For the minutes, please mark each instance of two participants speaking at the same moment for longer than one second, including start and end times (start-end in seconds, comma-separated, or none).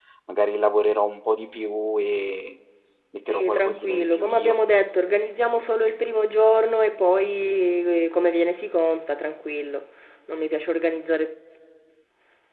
3.3-4.6